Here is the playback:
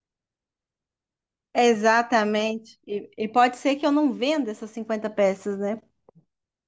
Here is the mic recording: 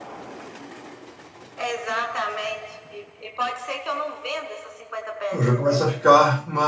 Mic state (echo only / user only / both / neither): both